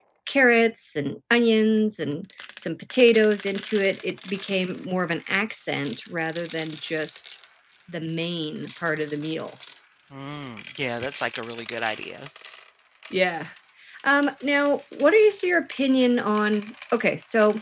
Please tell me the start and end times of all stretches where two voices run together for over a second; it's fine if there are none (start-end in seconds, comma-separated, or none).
none